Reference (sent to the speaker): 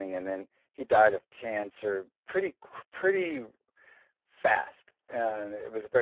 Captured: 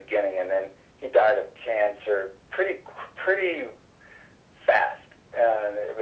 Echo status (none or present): present